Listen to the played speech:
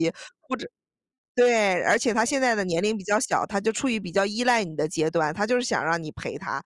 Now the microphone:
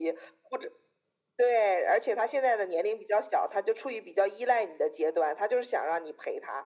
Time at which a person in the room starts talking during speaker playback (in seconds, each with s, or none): none